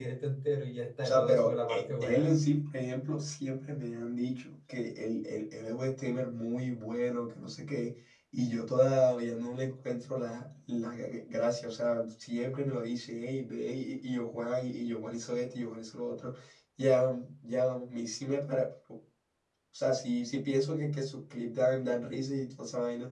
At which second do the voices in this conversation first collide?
1.0 s

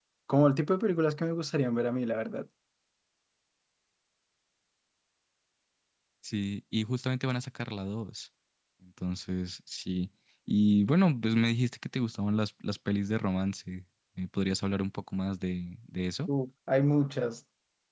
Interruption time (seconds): none

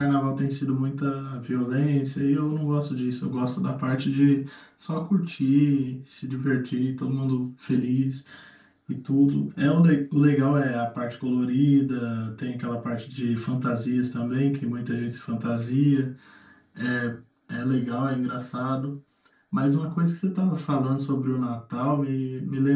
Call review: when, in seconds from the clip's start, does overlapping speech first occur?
none

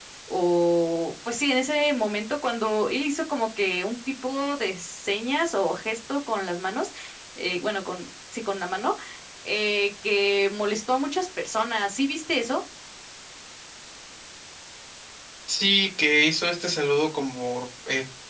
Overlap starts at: none

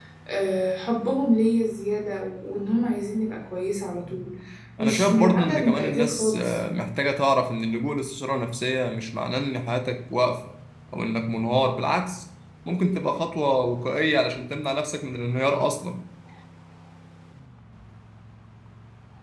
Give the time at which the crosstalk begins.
4.8 s

